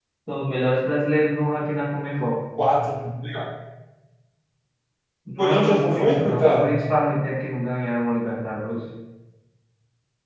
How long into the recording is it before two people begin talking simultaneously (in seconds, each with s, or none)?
5.4 s